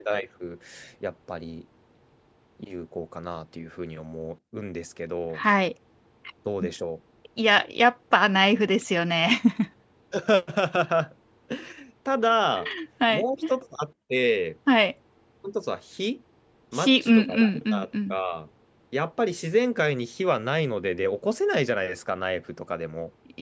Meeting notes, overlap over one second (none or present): present